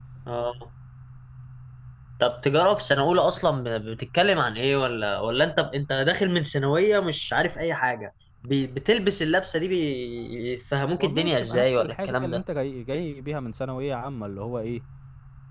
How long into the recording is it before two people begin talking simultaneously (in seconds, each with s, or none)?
11.0 s